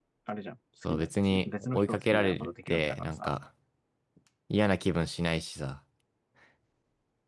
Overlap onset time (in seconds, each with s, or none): 0.8 s